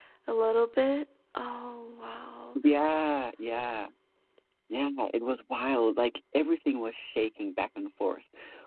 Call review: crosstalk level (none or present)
none